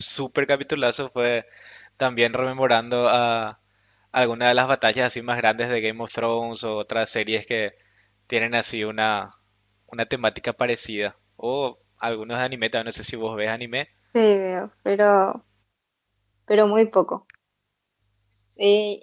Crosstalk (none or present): none